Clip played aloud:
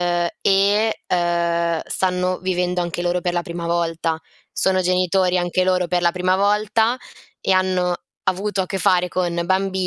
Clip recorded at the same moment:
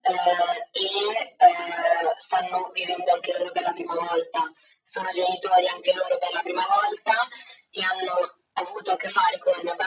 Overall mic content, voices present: echo only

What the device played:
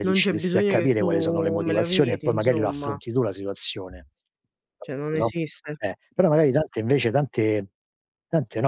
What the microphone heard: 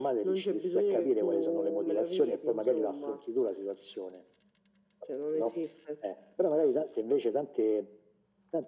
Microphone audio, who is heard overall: echo only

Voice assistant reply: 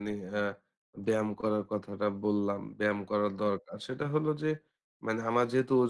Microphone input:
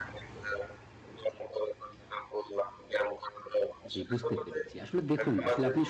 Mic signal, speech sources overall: both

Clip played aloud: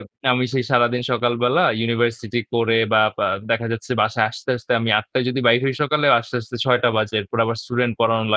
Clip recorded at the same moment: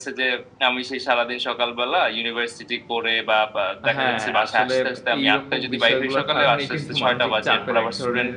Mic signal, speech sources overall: both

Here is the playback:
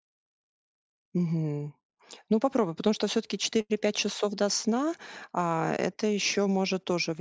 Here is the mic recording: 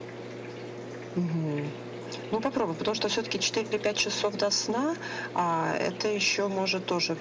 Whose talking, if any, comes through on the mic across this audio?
echo only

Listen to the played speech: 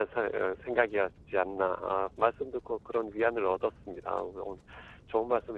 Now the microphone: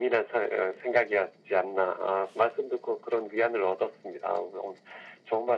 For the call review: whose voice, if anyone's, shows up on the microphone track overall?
echo only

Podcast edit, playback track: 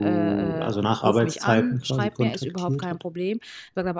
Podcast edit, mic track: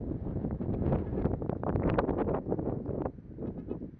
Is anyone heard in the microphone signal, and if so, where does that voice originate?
neither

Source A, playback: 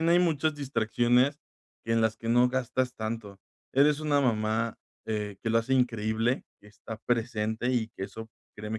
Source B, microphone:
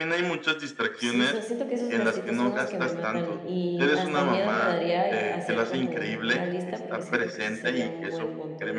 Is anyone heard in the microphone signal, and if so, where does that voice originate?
both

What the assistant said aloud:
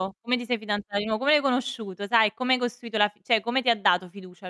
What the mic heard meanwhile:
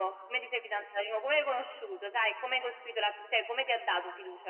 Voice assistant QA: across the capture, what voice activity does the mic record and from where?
echo only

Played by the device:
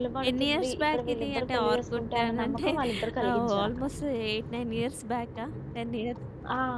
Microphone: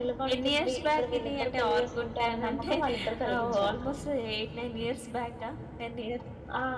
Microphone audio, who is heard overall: echo only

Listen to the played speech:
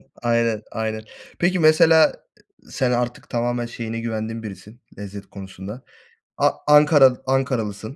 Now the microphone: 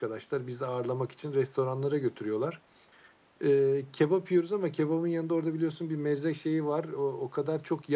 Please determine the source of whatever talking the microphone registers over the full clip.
user only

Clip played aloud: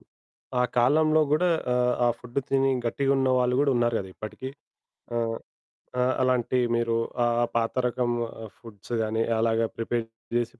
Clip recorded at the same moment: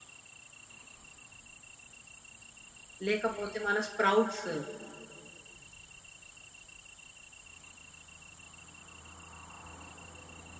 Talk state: user only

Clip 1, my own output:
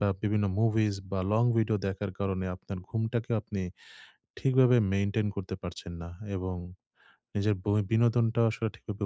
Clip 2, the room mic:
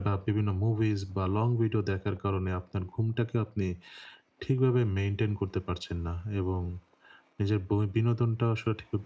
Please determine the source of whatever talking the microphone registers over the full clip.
echo only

